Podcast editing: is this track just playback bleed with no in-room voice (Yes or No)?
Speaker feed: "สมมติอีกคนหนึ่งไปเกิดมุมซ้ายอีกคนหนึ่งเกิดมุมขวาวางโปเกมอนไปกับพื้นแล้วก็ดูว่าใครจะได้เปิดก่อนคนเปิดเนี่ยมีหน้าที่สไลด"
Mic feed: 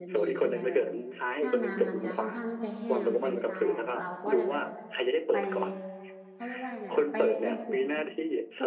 No